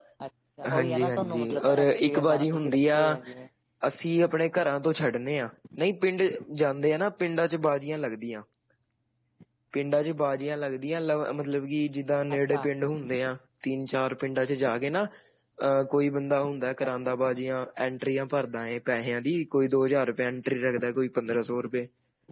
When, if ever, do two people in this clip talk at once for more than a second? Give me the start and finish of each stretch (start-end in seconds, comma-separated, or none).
0.7-2.2